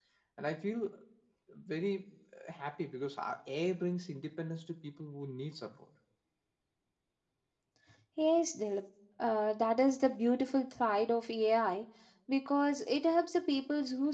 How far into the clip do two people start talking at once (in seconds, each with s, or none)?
none